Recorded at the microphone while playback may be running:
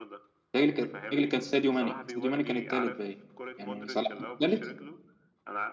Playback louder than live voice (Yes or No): No